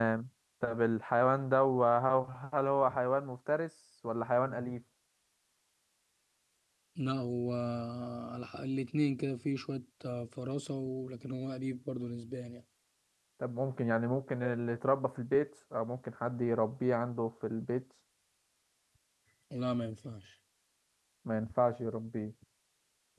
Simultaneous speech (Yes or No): No